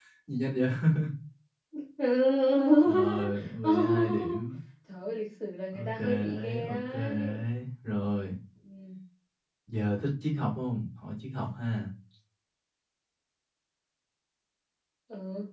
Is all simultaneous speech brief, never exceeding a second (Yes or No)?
No